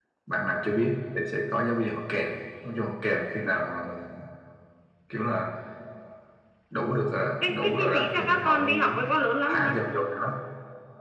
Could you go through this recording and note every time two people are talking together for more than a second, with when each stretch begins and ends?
7.4-8.9

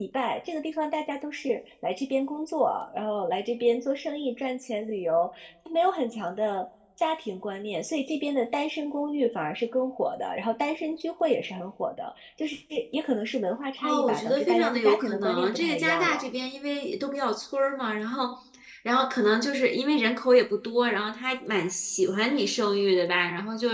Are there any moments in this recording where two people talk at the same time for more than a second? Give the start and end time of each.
13.8-16.3

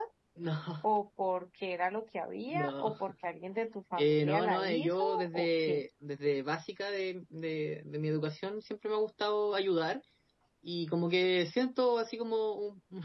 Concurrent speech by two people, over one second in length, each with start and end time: 4.0-5.8

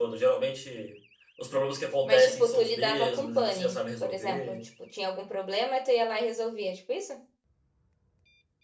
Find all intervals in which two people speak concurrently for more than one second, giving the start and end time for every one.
2.0-4.6

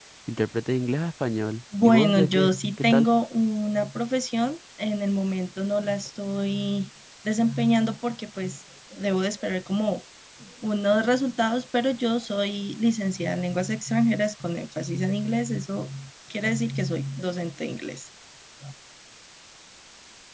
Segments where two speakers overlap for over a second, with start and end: 1.8-3.0

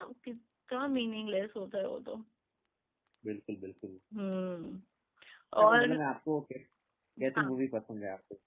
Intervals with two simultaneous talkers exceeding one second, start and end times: none

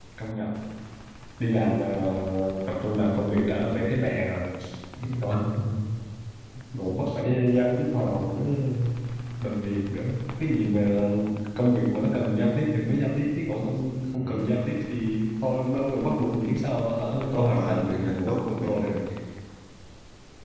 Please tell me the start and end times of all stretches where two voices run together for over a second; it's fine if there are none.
17.3-19.0

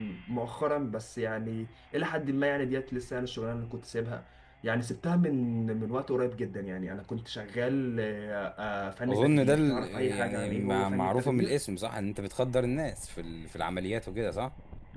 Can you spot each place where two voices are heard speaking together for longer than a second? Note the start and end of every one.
9.1-11.6

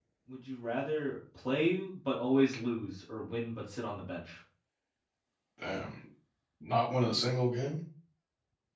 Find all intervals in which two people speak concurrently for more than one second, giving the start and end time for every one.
none

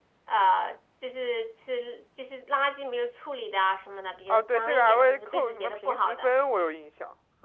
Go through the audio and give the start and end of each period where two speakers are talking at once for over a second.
4.3-6.3

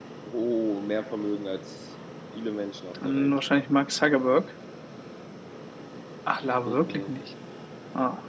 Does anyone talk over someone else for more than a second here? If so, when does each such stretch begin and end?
none

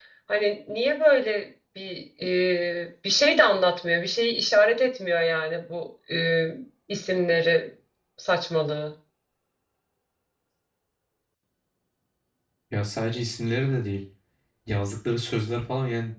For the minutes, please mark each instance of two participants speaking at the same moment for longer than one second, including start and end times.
none

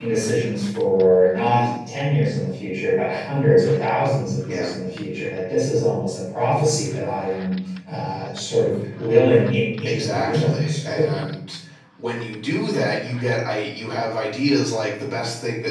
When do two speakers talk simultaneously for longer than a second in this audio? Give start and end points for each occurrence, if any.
9.8-11.1

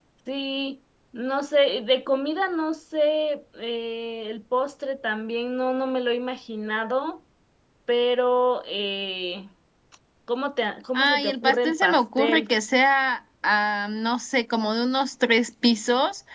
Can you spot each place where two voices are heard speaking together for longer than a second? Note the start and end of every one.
10.9-12.5

